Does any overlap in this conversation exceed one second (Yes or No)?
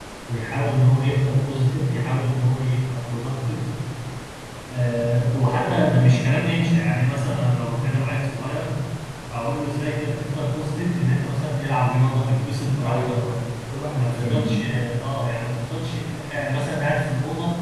Yes